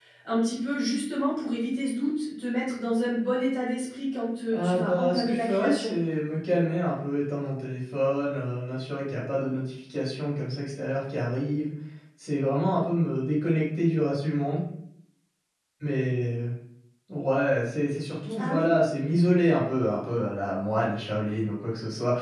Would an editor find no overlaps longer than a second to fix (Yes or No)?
No